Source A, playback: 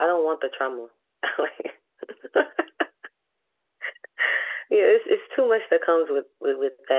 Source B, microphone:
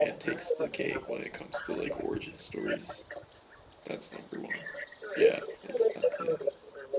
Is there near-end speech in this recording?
Yes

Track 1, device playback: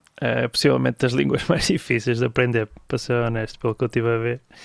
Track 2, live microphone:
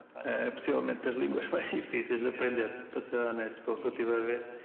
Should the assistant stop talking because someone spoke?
Yes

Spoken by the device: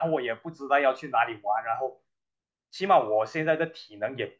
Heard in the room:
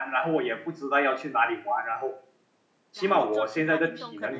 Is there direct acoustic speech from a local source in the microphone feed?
Yes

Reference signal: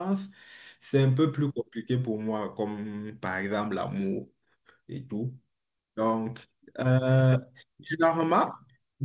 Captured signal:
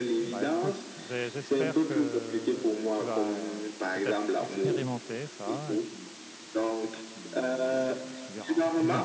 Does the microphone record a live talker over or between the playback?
Yes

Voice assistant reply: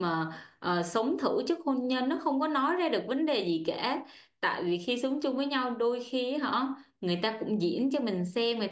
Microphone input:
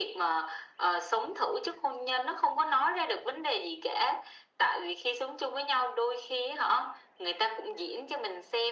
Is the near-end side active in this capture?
No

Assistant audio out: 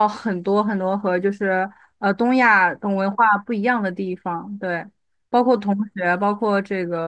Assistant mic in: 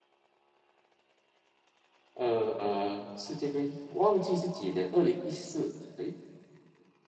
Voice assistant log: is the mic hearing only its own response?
No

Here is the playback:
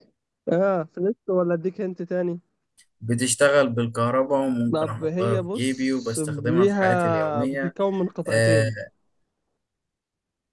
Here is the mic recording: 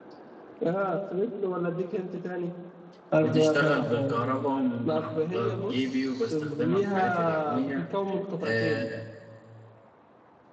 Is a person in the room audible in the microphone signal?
Yes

